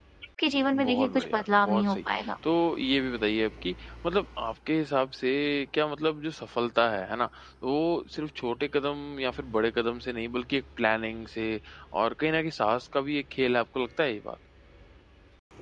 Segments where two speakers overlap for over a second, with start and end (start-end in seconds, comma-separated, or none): 0.7-2.0